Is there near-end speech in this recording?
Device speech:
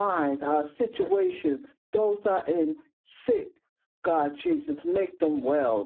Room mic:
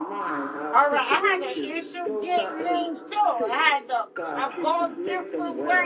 Yes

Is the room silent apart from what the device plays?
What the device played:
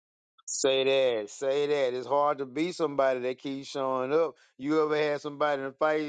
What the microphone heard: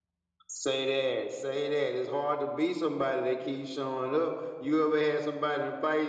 Yes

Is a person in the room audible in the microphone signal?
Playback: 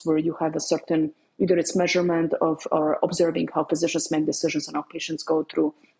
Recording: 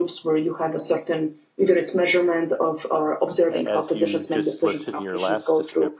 Yes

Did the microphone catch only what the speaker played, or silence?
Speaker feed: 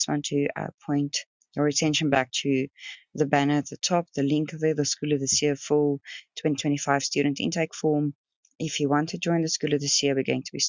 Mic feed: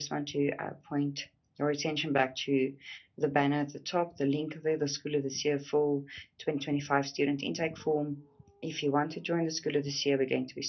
Yes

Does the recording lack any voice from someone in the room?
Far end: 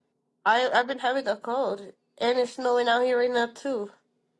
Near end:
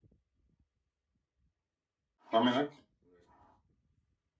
No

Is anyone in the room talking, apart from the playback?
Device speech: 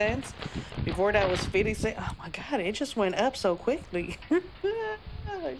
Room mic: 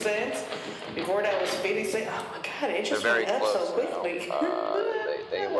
Yes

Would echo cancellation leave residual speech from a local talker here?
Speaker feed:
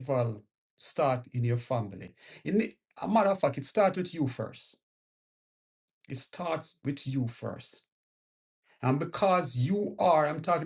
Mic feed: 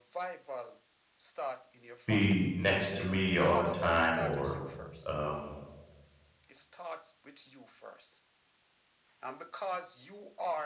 Yes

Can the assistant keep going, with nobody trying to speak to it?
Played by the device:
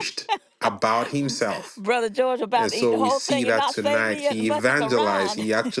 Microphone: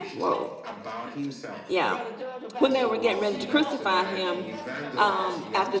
No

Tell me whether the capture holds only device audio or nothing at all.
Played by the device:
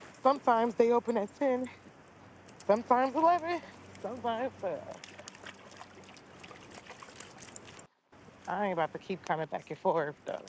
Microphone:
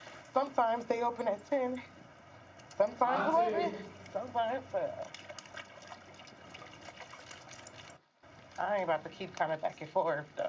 No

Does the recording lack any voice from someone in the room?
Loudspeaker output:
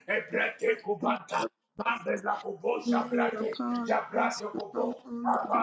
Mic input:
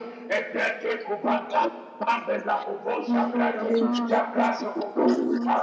No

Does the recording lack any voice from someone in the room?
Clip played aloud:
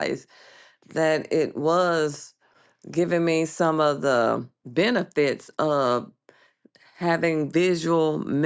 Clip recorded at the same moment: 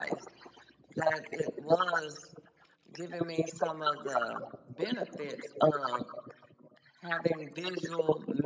Yes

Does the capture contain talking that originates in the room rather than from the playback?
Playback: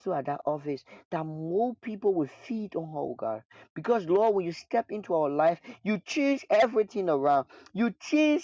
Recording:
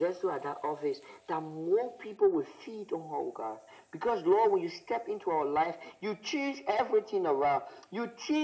No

